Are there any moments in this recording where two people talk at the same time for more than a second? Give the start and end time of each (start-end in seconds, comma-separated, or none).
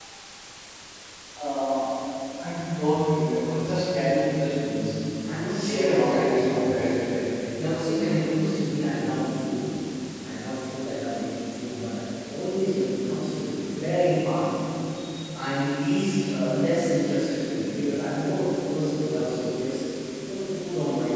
5.5-6.9